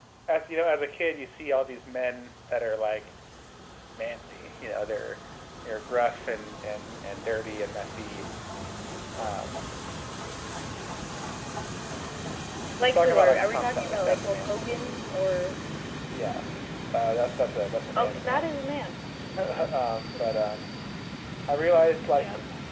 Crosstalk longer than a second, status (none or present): present